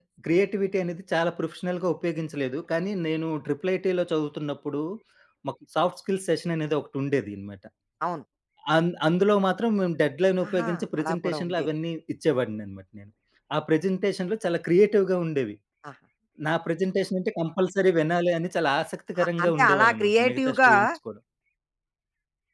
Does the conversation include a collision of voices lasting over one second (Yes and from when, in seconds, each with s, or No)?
Yes, from 10.5 s